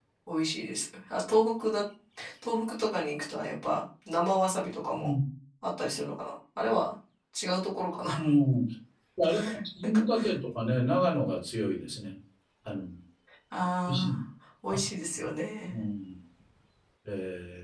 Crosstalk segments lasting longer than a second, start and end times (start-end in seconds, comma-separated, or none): none